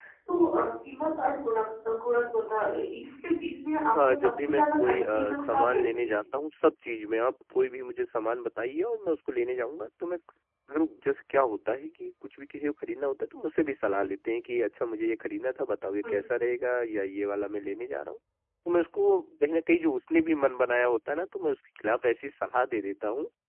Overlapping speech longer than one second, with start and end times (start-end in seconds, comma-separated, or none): 4.1-6.2